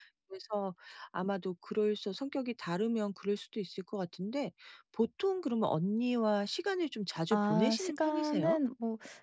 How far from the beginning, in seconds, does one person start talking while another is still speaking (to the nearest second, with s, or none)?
7 s